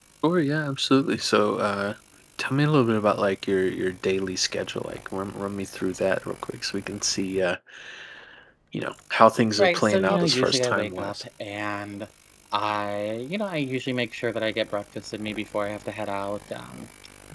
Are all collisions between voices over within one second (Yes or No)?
No